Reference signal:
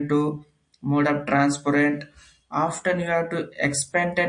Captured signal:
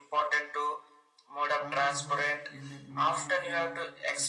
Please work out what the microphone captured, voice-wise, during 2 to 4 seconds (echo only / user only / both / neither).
both